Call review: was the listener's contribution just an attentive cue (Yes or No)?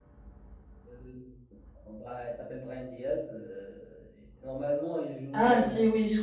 No